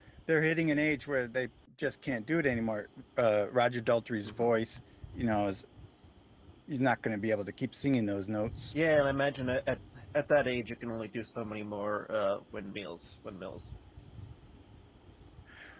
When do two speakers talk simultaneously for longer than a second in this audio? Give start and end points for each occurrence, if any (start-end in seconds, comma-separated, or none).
none